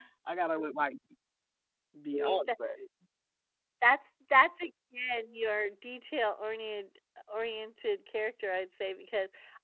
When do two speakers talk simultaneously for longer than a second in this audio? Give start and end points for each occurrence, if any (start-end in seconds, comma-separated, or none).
none